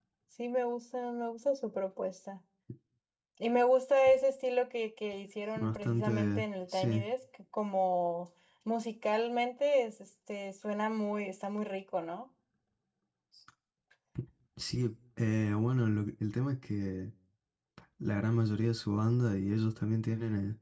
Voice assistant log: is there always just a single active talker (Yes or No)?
No